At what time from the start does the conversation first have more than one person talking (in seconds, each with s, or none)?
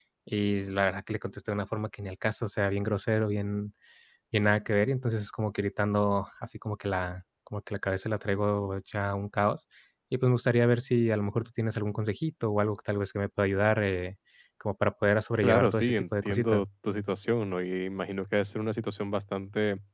15.4 s